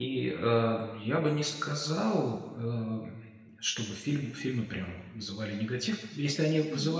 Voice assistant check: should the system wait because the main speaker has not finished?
Yes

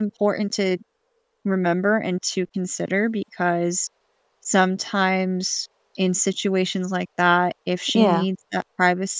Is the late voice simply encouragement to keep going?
Yes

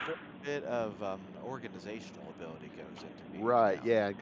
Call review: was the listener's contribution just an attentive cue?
No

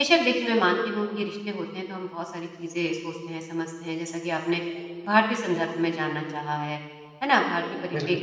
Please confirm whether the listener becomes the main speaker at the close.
No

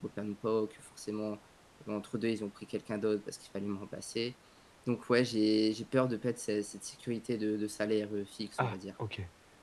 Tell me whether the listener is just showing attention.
No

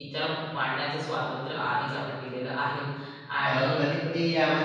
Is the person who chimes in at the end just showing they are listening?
No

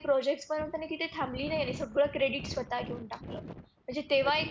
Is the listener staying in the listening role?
Yes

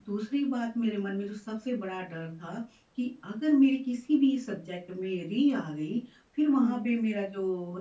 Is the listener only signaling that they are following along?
Yes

